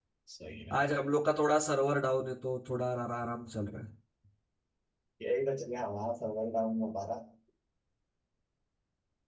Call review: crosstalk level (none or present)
none